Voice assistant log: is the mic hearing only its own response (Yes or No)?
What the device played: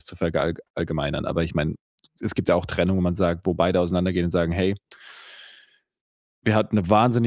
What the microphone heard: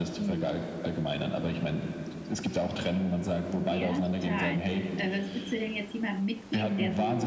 No